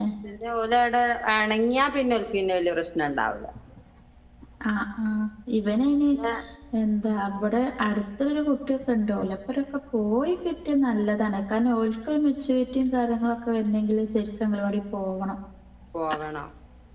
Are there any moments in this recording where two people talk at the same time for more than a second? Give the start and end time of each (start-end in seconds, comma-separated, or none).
none